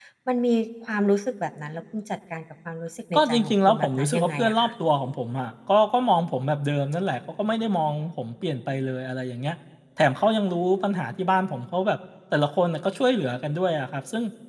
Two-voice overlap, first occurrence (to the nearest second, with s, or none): 3 s